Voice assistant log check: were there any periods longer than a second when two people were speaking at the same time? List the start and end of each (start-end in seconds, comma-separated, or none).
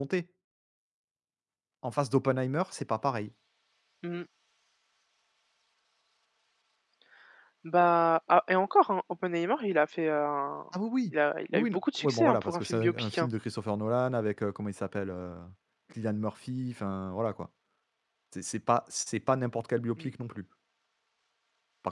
11.5-13.3